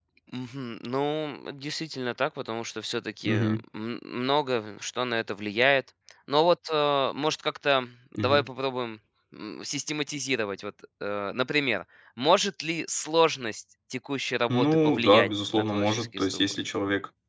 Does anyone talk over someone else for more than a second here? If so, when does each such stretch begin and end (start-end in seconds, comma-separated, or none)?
14.5-16.4